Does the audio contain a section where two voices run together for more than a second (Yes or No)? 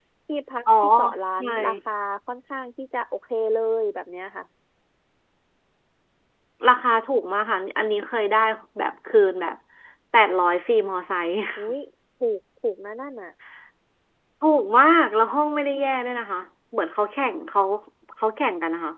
No